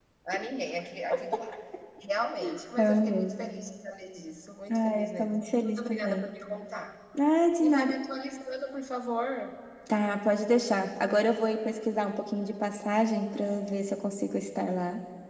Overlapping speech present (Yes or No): Yes